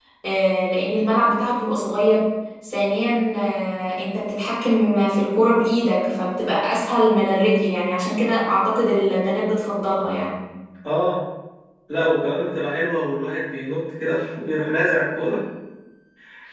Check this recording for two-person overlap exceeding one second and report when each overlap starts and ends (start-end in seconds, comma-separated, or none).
none